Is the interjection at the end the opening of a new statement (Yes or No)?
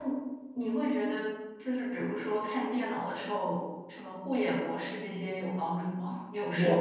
Yes